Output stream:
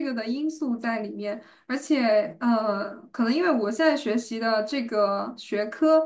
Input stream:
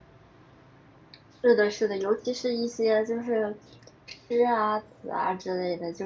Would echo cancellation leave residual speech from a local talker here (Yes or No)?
Yes